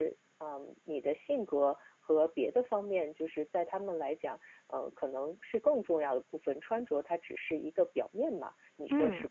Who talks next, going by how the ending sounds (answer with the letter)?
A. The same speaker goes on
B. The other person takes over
B